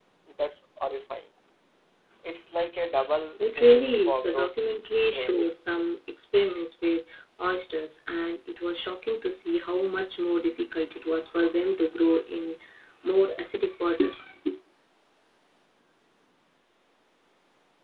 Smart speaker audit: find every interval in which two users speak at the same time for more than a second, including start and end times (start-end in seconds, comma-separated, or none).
3.4-4.6